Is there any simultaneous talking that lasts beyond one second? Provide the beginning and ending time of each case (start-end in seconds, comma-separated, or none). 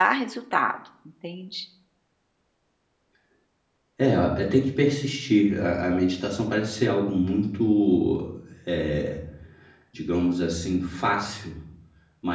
none